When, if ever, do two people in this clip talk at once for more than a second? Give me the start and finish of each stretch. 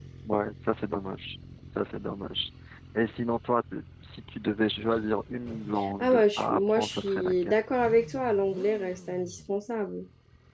6.0-7.6

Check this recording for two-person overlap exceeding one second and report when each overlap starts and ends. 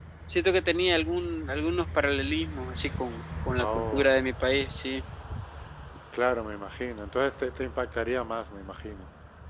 none

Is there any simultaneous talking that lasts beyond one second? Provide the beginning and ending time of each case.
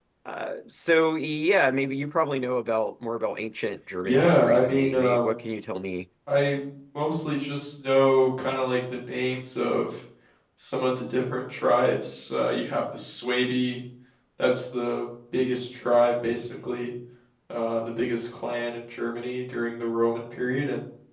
4.0-5.3

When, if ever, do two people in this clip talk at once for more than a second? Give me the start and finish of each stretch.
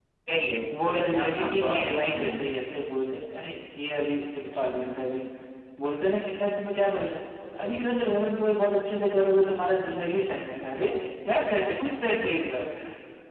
0.8-2.5

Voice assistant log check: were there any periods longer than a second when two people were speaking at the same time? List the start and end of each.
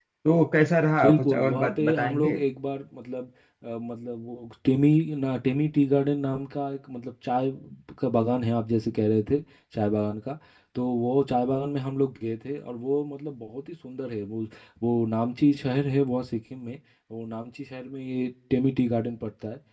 1.0-2.4

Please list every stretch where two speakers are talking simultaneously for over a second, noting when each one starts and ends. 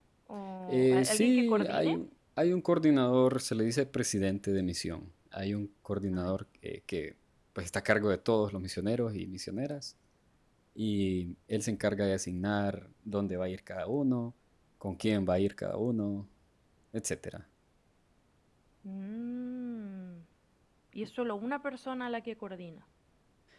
0.7-1.9

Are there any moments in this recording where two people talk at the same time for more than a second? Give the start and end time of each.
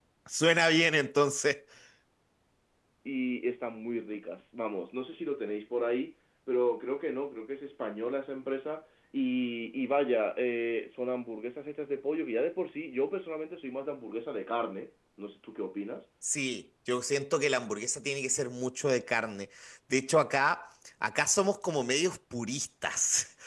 none

